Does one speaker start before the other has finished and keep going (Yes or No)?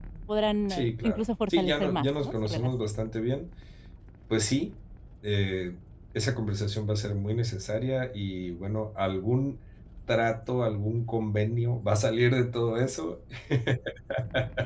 Yes